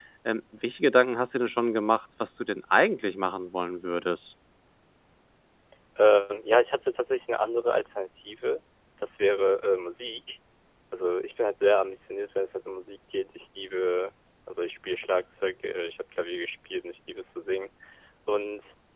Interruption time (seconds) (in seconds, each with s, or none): none